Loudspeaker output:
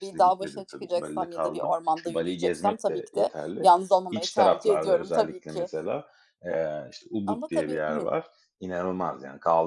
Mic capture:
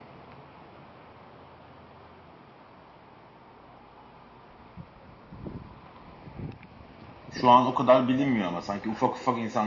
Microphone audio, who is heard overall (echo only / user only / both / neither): user only